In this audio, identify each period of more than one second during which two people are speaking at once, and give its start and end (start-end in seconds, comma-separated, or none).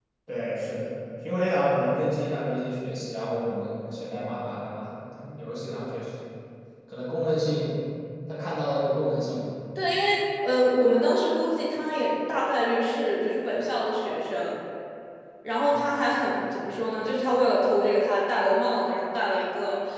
none